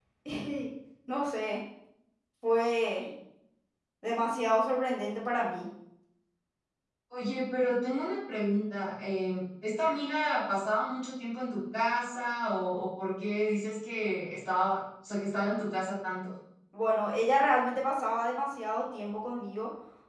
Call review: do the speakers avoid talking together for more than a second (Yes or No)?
Yes